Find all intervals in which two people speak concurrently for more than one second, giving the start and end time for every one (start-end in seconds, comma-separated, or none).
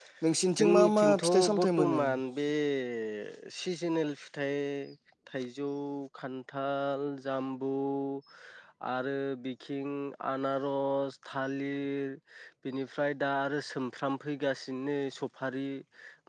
0.6-2.0